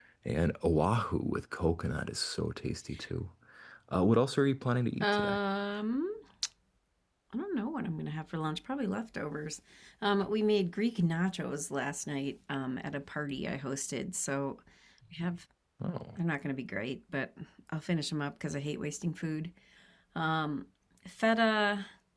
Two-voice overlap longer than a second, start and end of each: none

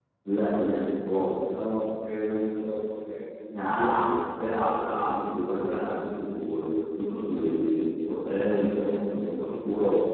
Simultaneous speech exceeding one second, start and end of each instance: none

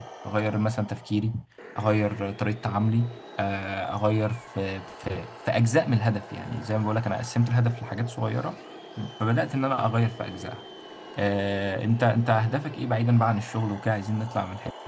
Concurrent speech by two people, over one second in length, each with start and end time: none

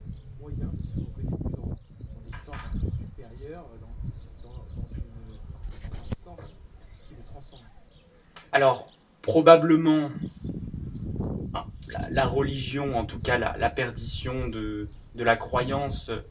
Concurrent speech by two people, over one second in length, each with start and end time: none

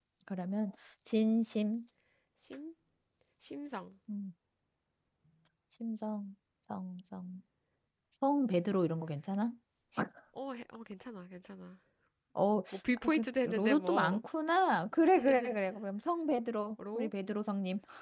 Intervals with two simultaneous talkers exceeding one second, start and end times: 12.7-14.2

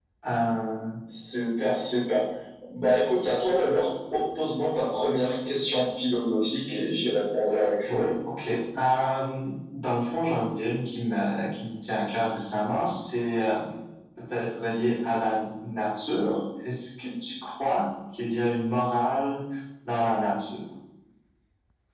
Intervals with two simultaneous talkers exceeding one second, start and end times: none

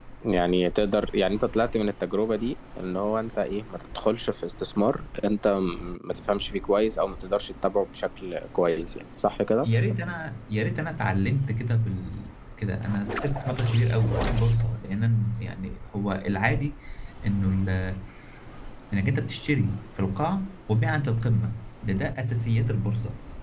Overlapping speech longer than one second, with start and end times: none

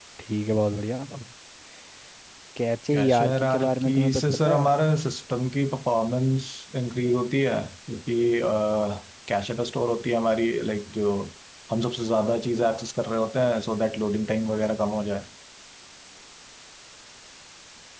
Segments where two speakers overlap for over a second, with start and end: 2.9-4.8

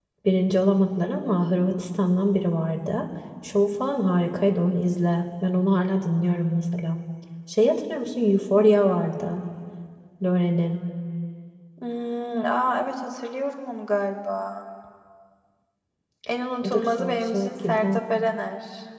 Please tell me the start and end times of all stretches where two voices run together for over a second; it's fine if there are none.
16.6-18.0

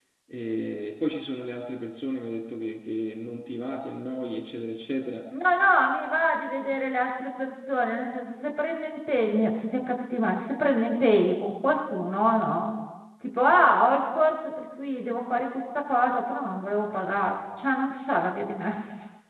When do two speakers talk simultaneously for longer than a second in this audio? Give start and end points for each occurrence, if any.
none

